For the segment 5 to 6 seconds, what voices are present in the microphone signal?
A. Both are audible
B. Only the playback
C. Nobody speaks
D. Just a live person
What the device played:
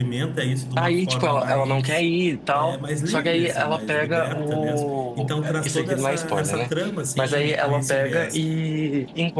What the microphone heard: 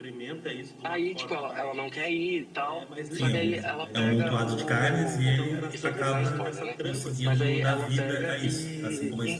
A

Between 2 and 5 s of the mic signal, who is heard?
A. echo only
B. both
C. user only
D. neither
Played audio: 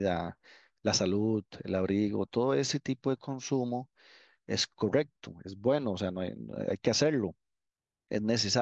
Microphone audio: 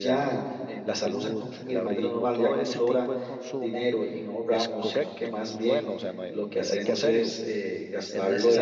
B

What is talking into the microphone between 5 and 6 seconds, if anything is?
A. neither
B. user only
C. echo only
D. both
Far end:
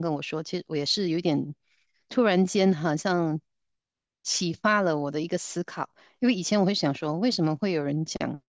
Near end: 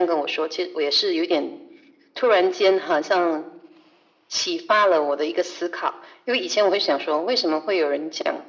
C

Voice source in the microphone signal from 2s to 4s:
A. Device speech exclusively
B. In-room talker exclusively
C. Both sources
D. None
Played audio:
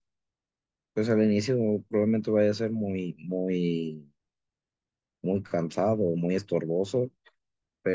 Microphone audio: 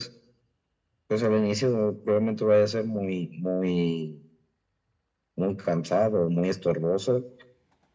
A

